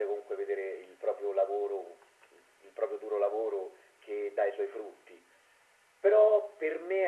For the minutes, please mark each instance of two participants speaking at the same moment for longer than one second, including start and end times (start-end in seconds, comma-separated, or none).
none